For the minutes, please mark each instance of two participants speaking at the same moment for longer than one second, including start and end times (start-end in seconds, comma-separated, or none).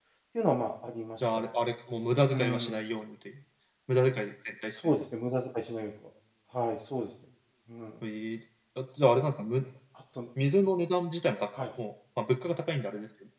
none